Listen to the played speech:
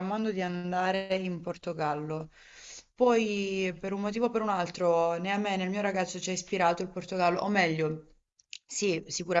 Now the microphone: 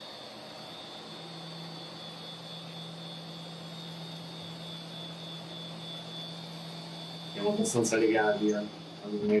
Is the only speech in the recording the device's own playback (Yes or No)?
No